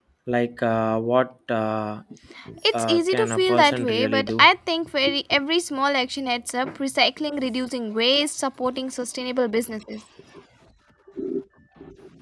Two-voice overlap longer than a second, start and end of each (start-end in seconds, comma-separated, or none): 2.7-4.5